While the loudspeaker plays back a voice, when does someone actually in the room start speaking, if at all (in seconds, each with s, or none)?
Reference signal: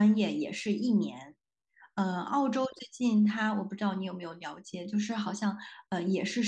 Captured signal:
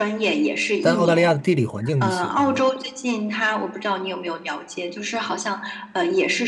0.8 s